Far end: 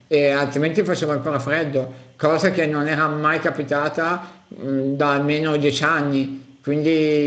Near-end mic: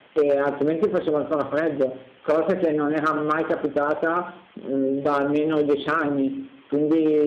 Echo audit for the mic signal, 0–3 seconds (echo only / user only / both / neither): echo only